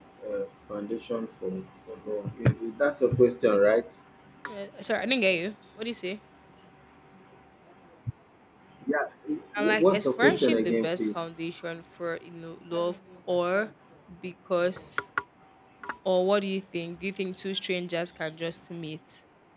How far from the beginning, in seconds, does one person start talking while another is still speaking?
10 s

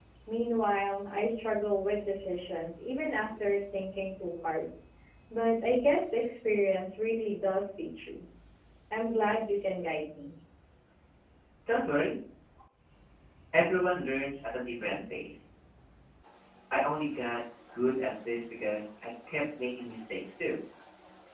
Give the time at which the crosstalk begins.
none

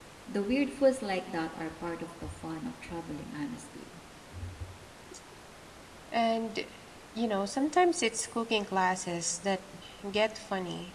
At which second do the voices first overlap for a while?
none

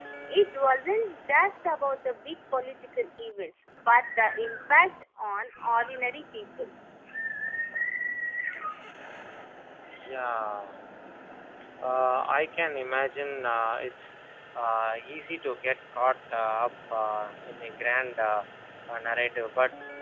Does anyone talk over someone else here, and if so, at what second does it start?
none

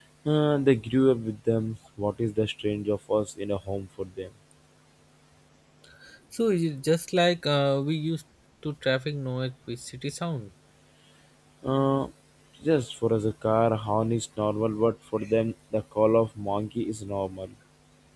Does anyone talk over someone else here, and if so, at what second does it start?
none

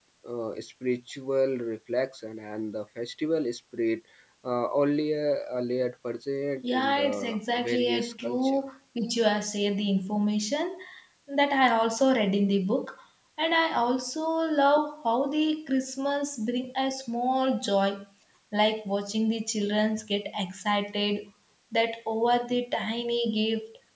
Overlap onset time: 7 s

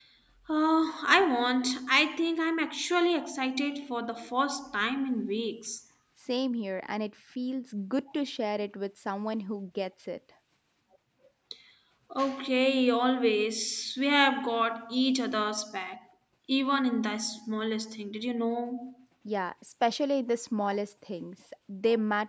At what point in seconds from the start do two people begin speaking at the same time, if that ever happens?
none

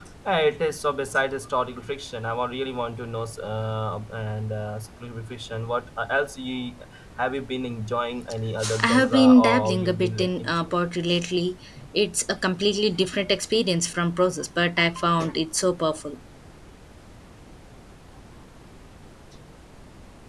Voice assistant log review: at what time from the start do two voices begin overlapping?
9 s

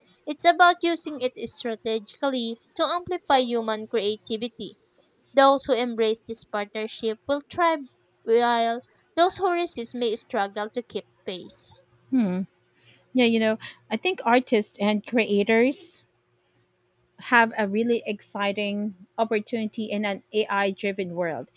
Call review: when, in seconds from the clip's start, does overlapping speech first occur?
none

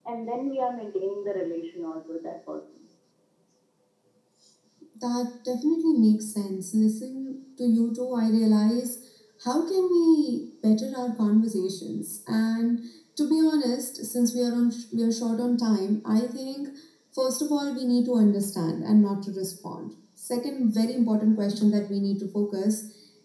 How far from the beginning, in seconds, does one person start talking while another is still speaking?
none

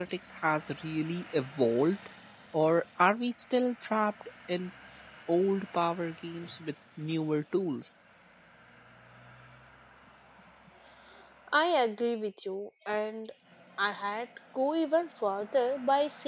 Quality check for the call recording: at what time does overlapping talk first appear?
none

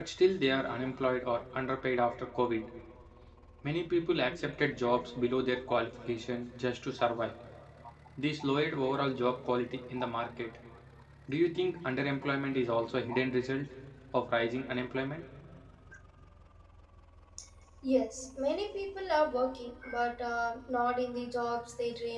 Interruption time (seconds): none

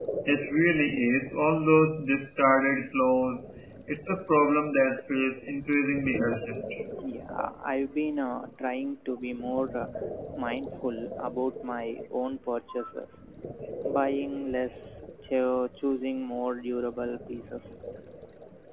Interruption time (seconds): none

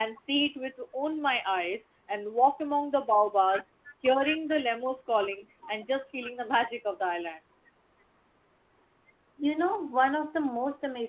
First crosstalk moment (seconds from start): none

